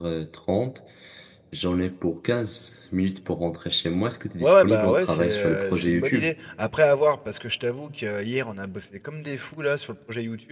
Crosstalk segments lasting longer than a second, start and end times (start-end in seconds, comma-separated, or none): 4.4-6.2